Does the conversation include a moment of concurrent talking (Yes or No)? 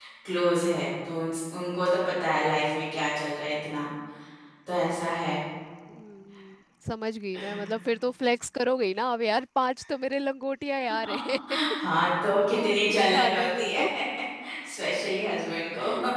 Yes